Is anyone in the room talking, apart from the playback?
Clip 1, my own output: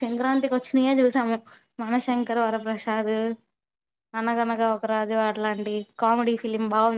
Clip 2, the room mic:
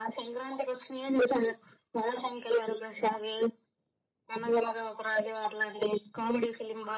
No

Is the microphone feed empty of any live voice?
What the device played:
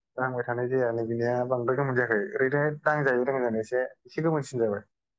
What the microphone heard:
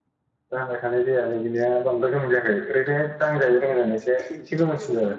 No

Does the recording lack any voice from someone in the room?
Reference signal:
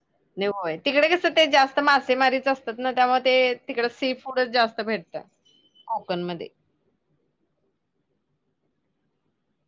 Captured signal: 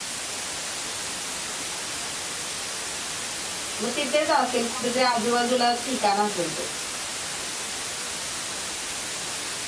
No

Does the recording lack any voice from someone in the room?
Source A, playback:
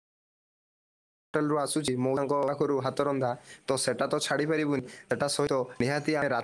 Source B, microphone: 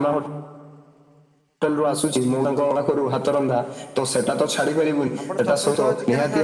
No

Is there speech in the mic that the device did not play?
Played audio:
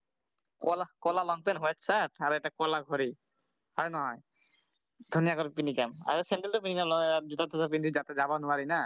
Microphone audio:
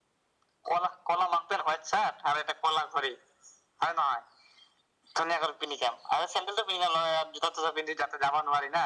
No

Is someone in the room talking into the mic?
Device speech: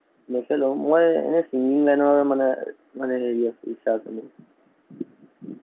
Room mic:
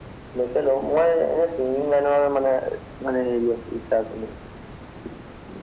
No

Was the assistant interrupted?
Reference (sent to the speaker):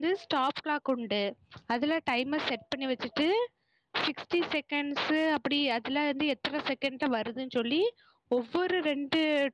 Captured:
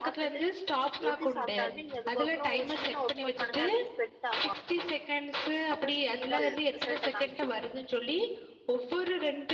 Yes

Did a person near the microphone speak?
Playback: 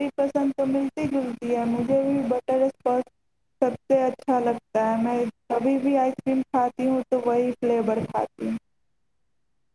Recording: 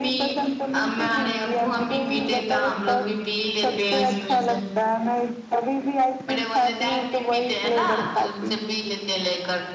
Yes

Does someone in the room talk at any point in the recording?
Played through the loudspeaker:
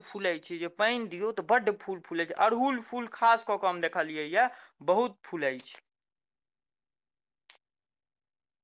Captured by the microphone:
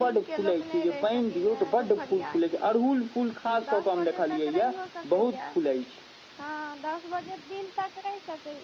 Yes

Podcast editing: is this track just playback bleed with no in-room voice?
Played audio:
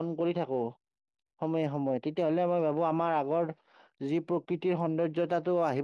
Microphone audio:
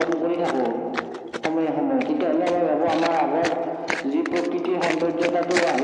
Yes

